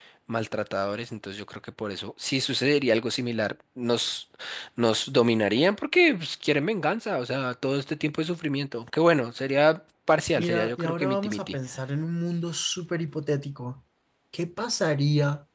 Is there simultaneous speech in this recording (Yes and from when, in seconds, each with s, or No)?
Yes, from 10.3 s